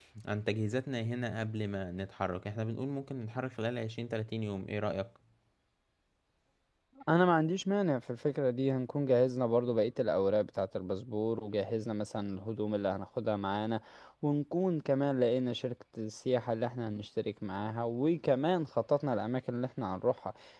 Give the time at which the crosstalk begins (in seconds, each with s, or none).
none